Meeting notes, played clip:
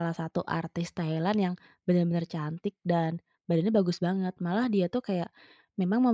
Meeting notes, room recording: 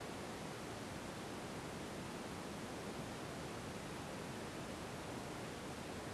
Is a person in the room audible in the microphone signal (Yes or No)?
No